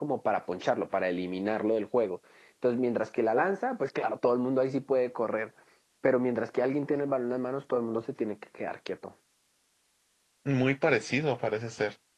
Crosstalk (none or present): none